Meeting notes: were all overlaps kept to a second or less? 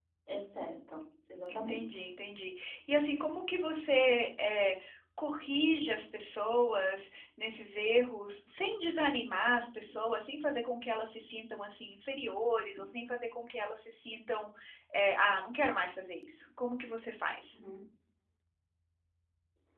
Yes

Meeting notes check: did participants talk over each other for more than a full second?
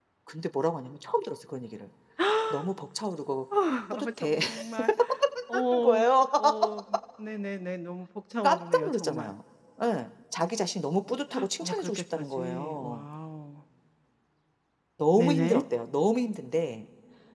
Yes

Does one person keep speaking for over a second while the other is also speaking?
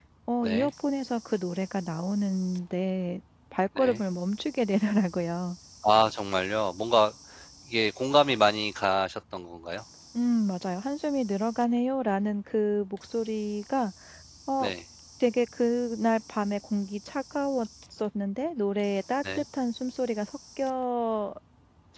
No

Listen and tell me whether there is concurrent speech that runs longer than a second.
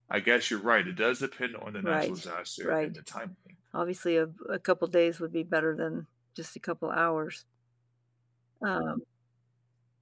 No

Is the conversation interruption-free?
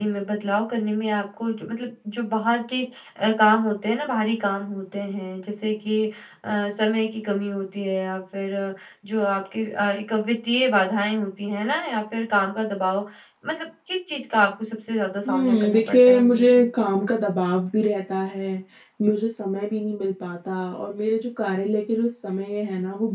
No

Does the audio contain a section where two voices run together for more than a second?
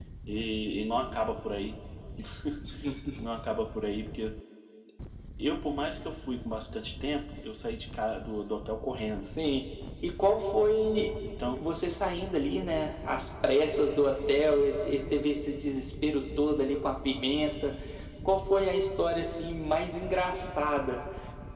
No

